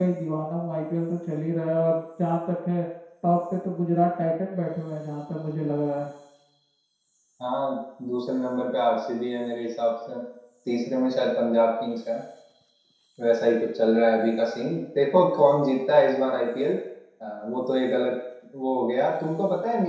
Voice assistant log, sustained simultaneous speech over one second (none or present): none